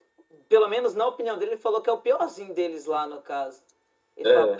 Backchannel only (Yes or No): No